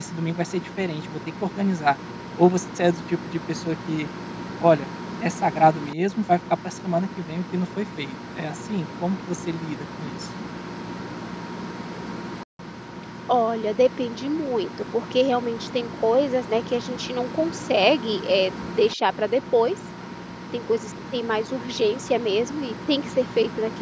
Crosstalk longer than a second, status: none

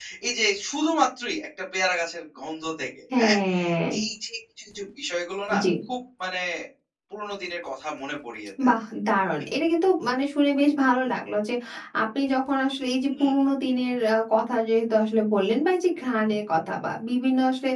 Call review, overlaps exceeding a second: none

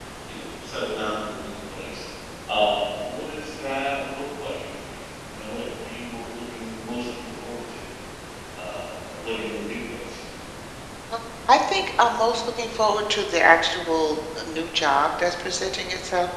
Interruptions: none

